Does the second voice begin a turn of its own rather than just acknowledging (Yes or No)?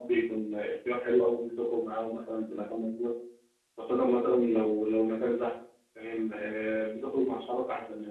No